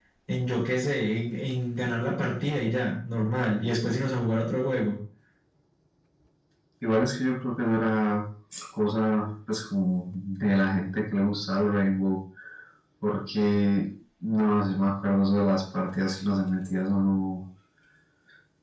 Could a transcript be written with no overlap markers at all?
Yes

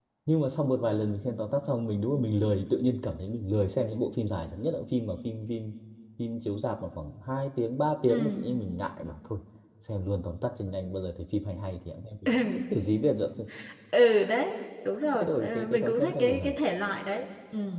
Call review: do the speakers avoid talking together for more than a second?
No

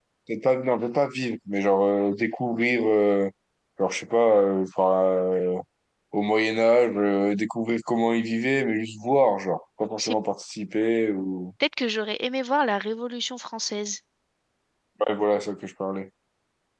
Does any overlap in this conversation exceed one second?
No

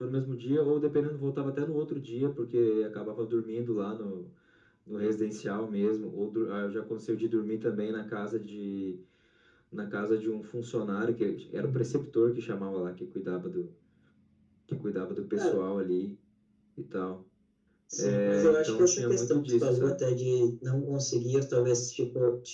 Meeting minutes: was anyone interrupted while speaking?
Yes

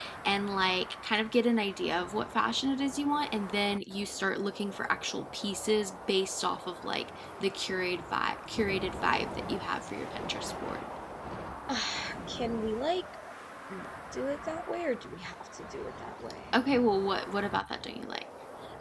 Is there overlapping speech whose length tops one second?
No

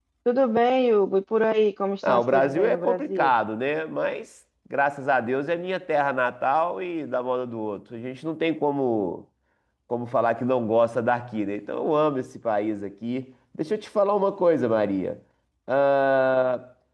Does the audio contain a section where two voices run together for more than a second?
Yes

